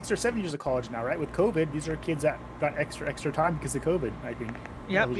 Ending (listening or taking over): taking over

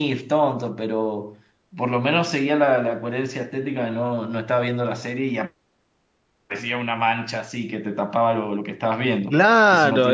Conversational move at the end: taking over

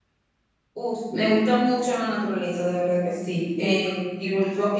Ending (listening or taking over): listening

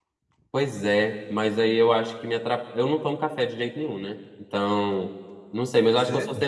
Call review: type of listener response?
listening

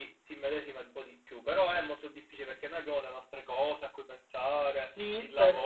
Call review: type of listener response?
taking over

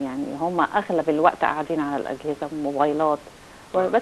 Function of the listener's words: listening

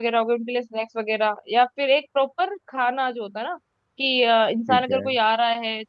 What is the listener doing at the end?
listening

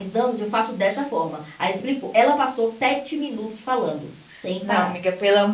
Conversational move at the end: taking over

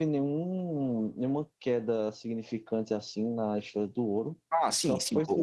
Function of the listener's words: taking over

